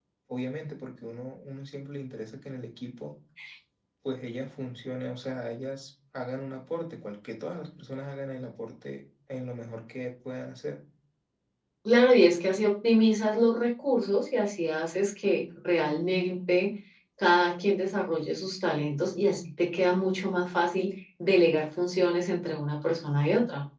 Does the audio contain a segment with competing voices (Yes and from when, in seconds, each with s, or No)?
No